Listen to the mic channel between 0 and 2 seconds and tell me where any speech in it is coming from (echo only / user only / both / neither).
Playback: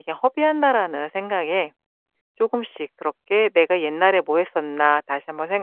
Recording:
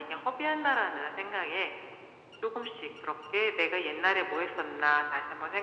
echo only